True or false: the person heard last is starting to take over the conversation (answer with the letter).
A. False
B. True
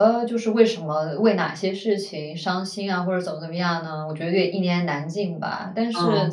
A